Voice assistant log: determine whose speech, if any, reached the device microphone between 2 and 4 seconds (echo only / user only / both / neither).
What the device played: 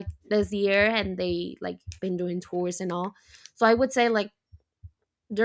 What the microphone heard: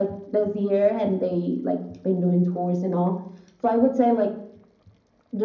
echo only